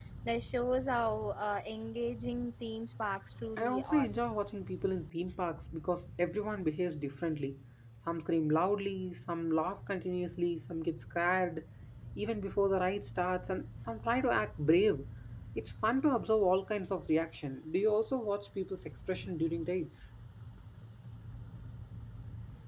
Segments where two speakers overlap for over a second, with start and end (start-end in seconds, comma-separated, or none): none